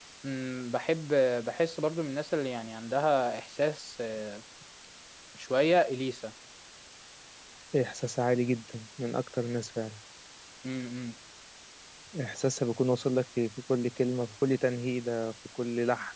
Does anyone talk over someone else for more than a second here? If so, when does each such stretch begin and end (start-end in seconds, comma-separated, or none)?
none